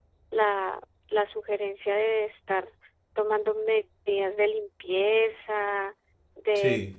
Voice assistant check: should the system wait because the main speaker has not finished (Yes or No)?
Yes